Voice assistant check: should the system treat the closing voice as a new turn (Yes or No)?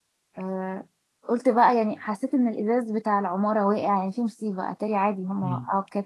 Yes